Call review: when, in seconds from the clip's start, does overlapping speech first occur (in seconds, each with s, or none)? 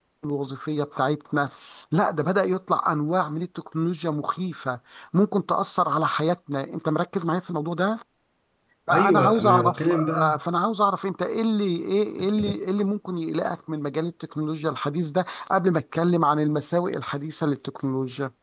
8.9 s